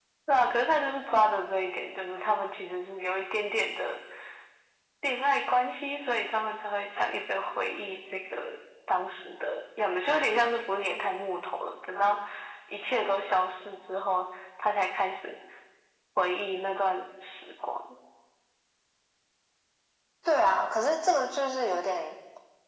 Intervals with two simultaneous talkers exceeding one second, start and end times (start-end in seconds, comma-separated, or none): none